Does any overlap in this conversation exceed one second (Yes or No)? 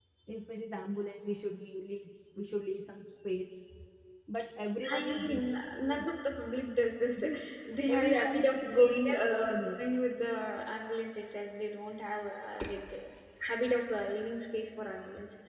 Yes